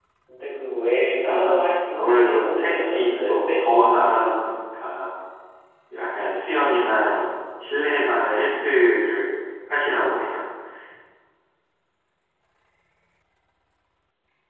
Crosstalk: present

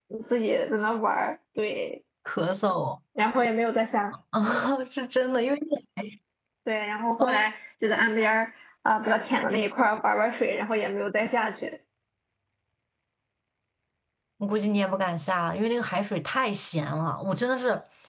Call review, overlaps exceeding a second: none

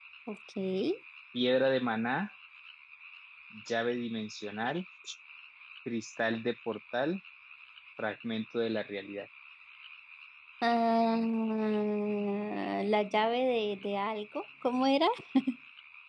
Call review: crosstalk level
none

